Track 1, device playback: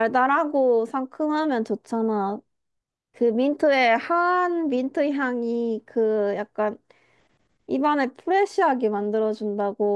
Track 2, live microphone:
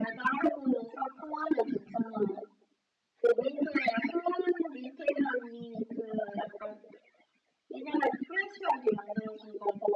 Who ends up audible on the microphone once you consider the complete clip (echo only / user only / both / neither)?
echo only